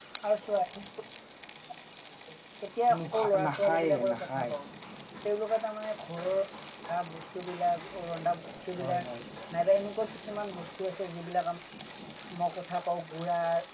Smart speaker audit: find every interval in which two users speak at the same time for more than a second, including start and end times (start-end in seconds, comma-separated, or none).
3.0-4.5